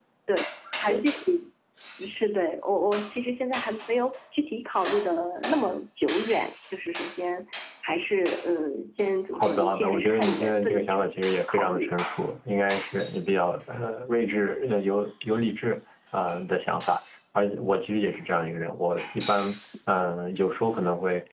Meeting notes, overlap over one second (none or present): present